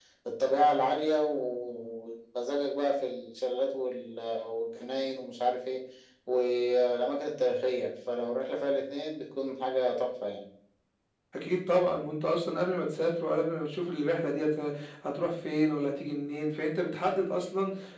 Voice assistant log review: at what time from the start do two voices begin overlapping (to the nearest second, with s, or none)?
none